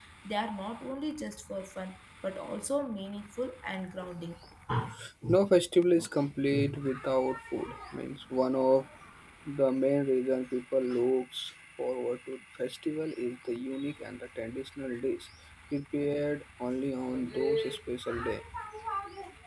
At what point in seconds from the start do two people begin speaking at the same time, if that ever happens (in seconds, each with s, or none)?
none